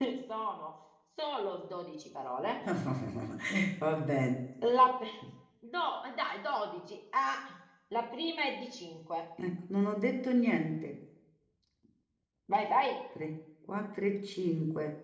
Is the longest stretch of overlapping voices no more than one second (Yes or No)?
Yes